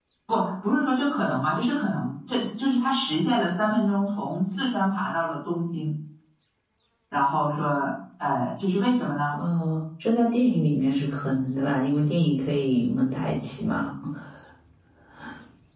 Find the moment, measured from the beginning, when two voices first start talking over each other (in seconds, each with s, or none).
none